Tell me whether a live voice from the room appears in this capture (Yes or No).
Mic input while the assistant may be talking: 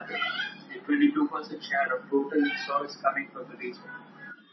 No